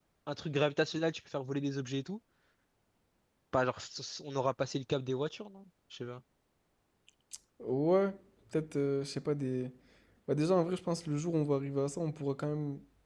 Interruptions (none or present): none